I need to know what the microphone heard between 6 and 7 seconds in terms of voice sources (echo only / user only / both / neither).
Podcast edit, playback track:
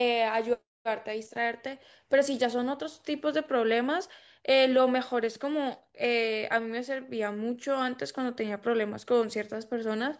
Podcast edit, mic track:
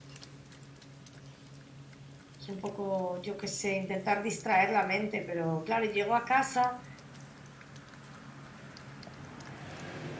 user only